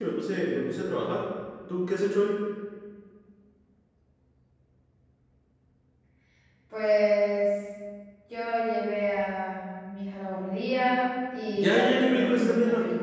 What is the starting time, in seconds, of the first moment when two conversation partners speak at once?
11.6 s

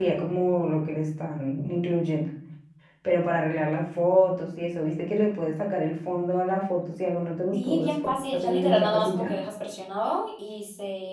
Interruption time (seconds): 7.5 s

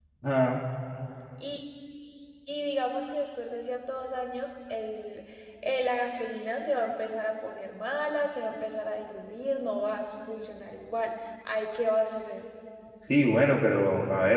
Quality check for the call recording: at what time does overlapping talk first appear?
none

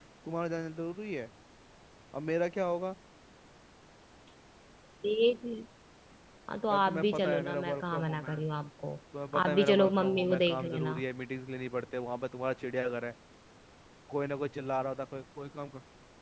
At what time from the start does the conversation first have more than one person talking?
6.7 s

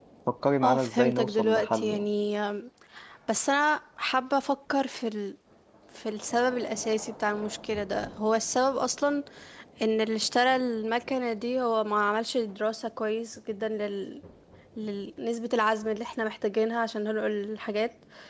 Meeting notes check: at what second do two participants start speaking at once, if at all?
0.6 s

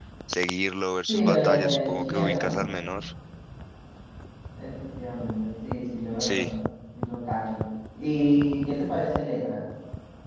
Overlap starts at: 1.1 s

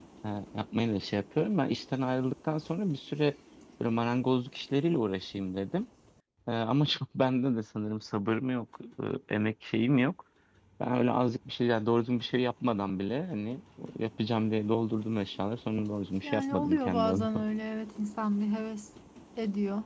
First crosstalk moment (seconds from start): 16.2 s

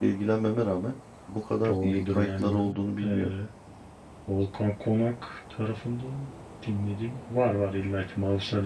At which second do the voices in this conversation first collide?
1.6 s

